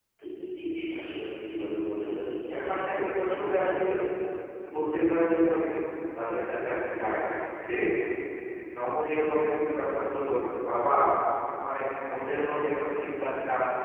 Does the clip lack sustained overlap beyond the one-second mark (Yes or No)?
No